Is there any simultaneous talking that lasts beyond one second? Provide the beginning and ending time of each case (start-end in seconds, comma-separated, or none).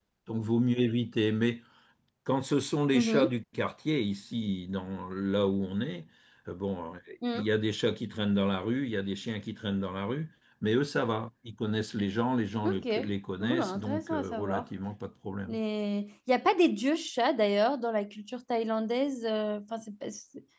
13.4-14.6